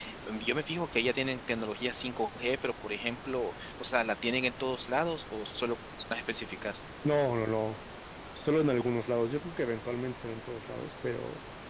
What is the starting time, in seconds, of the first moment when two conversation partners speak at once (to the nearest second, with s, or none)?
none